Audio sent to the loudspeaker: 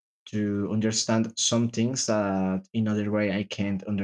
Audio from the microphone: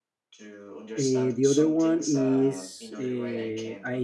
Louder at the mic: user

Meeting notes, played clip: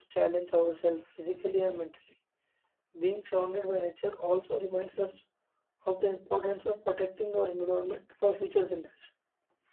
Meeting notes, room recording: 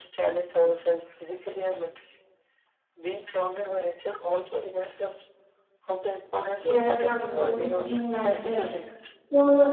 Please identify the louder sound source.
user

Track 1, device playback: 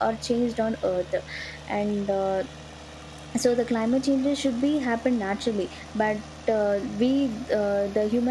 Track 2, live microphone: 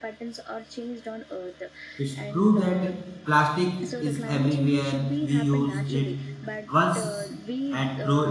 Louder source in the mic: user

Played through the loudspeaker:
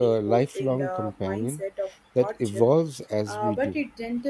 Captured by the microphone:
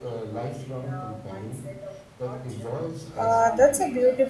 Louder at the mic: user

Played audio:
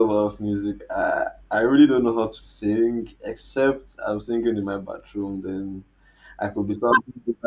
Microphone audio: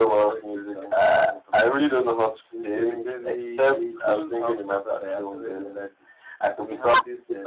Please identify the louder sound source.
echo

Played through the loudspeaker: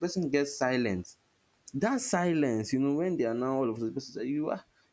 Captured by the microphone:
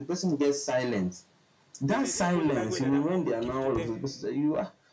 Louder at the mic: echo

